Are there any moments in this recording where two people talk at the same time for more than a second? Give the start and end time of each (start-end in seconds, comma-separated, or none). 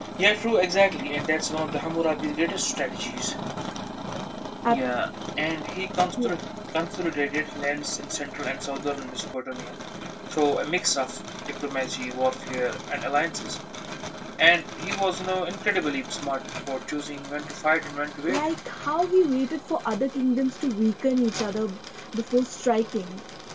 none